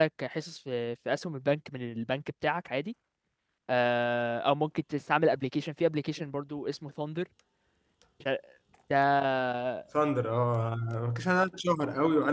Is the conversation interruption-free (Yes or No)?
Yes